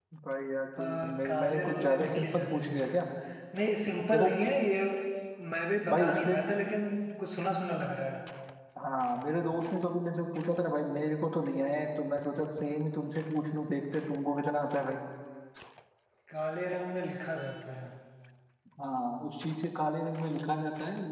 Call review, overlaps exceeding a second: present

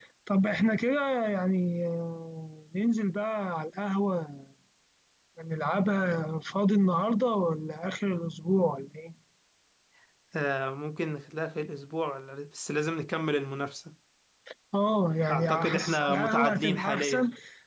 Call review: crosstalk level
present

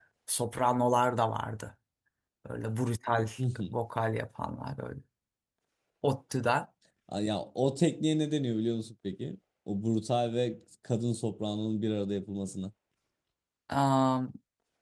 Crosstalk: none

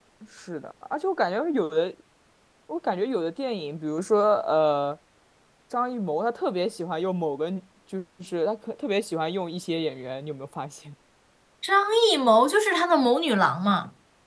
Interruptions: none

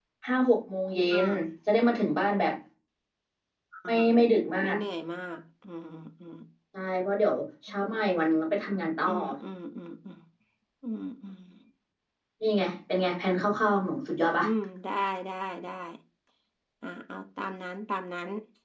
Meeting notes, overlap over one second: none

